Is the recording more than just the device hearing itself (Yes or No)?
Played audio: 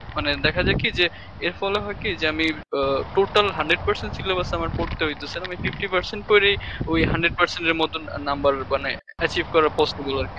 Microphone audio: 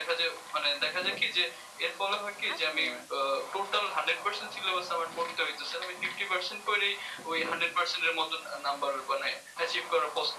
Yes